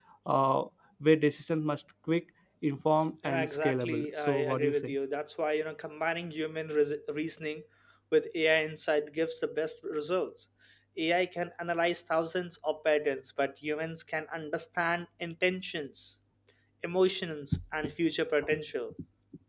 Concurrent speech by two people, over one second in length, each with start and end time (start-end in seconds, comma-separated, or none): 3.2-5.0